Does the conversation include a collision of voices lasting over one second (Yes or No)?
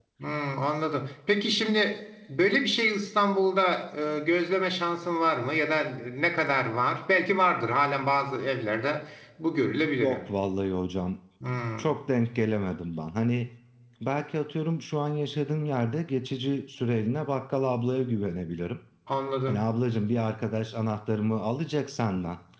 No